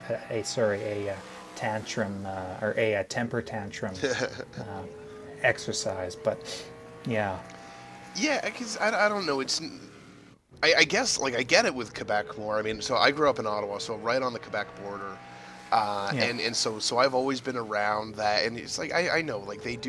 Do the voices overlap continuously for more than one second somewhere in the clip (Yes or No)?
No